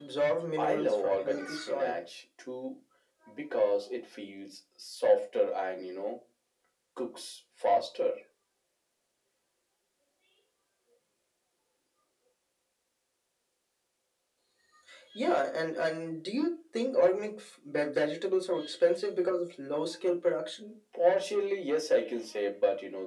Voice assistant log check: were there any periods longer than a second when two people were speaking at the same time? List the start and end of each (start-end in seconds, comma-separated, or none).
0.6-2.0